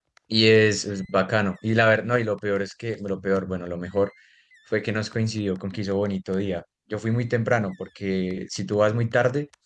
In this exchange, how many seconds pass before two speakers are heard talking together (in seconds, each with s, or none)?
none